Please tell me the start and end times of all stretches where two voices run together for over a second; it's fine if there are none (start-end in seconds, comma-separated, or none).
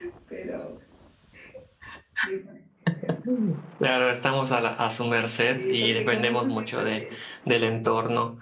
5.5-7.0